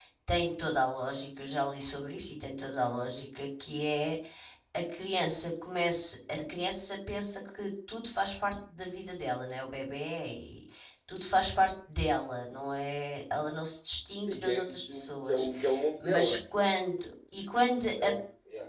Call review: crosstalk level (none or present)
present